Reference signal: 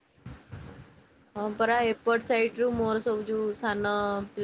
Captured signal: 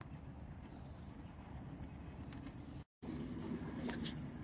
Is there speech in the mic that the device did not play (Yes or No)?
No